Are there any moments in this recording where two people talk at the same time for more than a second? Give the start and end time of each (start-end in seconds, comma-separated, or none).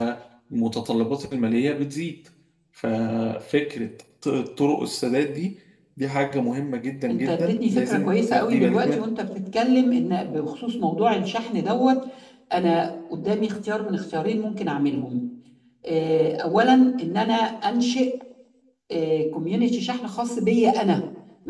7.1-9.1